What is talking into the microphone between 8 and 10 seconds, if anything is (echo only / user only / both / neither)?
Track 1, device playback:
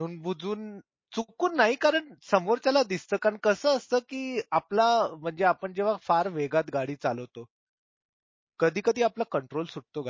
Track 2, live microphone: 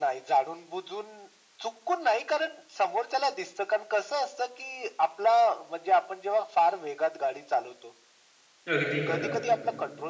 both